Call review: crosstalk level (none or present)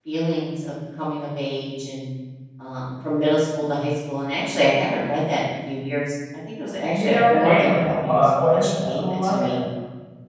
present